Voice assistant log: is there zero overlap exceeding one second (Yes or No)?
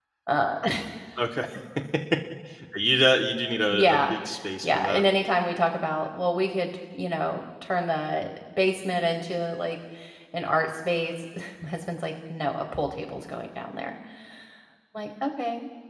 Yes